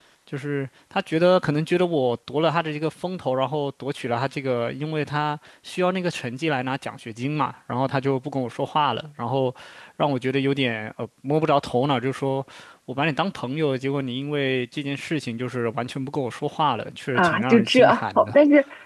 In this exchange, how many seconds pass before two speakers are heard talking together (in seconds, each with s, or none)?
17.1 s